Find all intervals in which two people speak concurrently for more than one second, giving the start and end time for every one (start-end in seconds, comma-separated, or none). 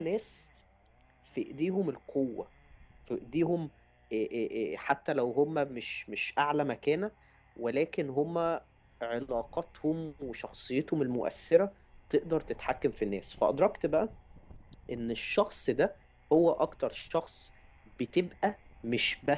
none